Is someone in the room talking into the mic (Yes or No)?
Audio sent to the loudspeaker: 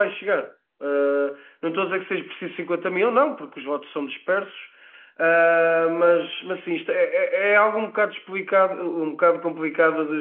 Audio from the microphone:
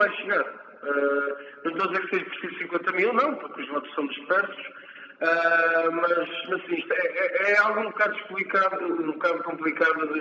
No